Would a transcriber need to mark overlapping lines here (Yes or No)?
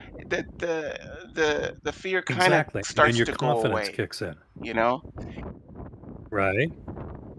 Yes